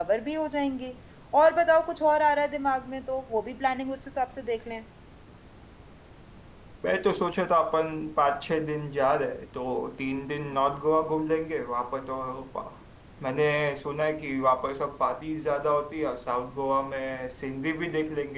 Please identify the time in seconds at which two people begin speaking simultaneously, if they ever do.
none

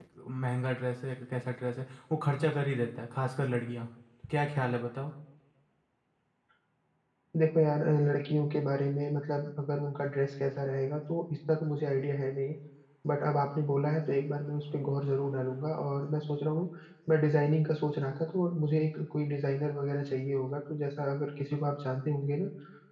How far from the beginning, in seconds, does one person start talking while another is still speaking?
none

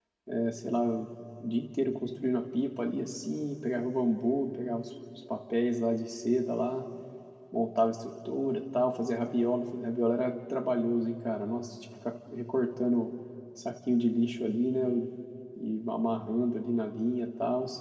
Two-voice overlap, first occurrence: none

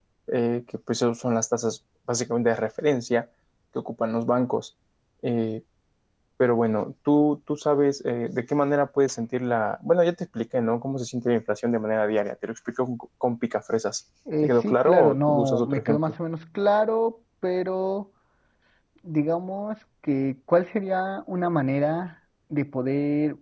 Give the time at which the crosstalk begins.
14.3 s

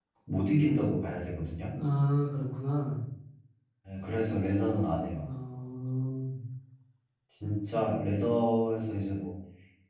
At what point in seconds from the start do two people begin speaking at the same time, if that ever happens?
none

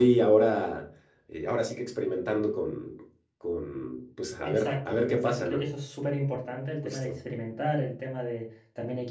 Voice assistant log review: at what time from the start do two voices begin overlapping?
4.4 s

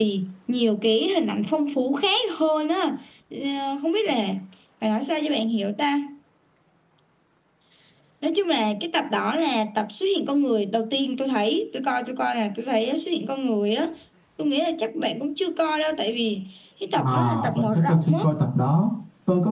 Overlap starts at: 17.0 s

